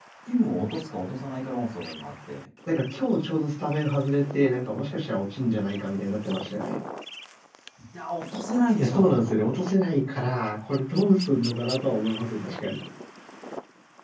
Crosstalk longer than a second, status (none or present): none